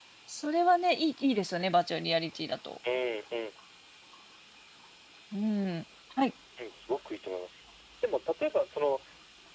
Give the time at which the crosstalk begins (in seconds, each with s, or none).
none